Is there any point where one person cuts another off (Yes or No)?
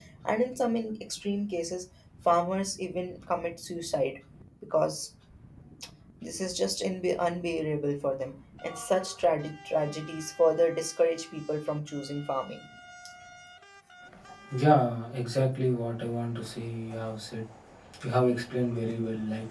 No